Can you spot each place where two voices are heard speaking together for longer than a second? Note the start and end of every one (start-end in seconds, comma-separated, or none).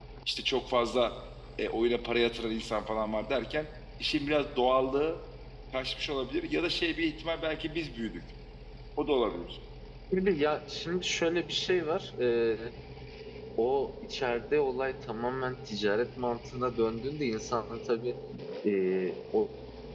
none